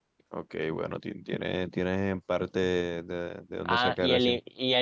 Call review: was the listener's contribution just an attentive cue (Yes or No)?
No